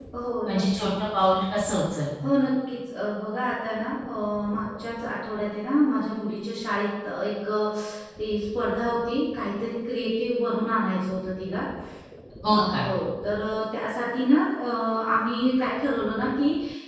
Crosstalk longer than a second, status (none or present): none